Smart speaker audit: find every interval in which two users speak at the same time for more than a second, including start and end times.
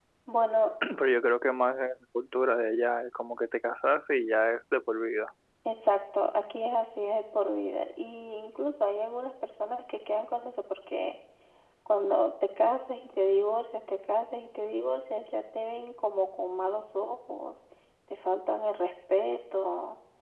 none

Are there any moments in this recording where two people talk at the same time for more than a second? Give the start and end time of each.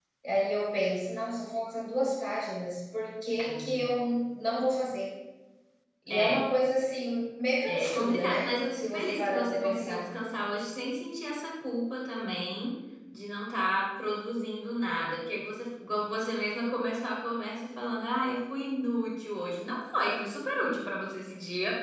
7.7-10.1

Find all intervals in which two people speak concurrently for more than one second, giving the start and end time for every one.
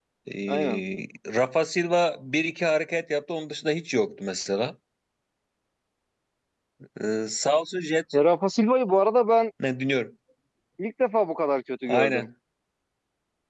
none

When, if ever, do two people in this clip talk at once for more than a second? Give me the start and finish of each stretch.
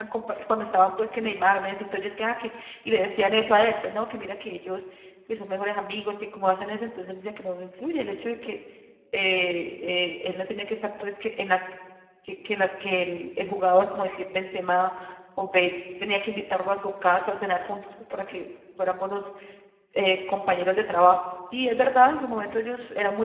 none

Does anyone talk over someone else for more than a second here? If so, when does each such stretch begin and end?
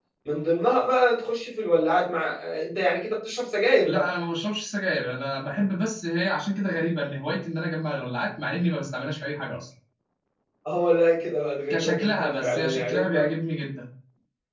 11.7-13.0

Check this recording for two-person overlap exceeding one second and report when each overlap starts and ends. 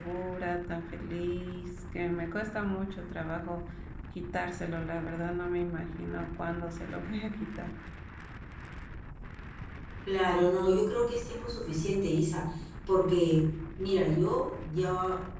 none

